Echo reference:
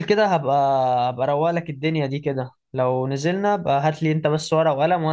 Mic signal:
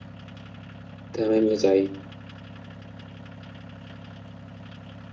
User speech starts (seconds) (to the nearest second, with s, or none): 1 s